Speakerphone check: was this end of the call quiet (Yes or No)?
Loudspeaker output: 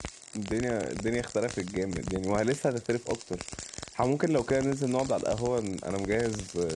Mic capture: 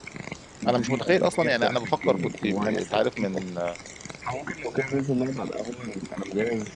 No